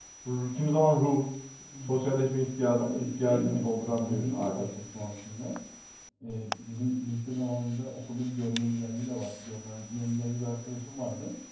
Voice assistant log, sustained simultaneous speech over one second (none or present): present